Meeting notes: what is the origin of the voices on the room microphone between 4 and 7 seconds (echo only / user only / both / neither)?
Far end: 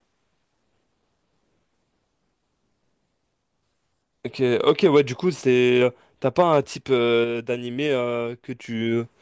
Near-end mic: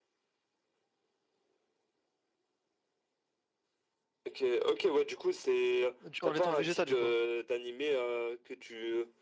both